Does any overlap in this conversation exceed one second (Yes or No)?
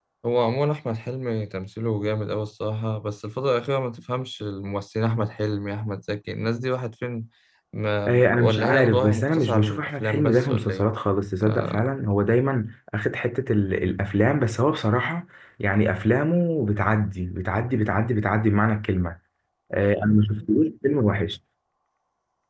Yes